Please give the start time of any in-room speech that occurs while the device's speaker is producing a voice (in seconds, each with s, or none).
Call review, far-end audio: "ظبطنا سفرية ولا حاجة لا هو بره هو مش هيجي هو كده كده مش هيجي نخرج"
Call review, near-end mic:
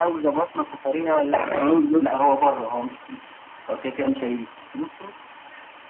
1.3 s